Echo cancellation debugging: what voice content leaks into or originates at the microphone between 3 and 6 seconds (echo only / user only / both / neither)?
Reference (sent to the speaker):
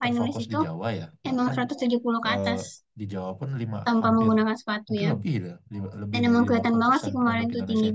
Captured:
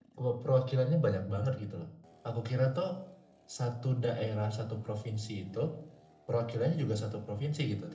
user only